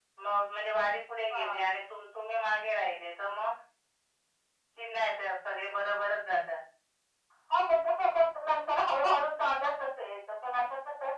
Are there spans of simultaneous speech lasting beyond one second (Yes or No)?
No